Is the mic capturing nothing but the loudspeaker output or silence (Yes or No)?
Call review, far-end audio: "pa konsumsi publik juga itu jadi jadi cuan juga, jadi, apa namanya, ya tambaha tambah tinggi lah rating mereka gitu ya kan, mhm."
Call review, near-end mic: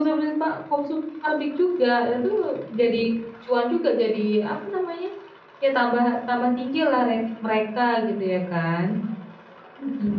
Yes